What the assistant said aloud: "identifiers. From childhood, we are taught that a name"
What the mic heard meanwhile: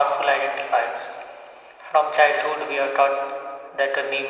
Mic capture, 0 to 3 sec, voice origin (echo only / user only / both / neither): echo only